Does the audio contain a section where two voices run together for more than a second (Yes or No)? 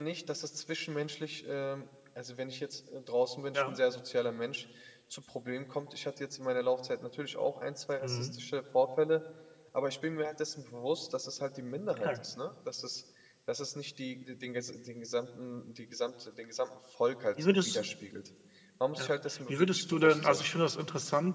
Yes